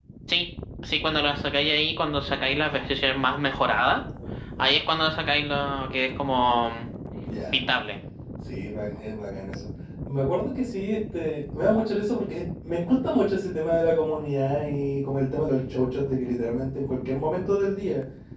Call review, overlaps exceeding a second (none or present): none